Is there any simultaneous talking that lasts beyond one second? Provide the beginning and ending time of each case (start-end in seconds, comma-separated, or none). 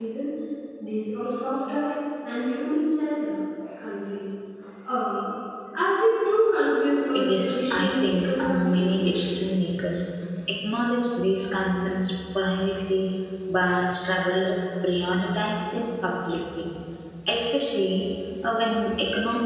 7.3-8.8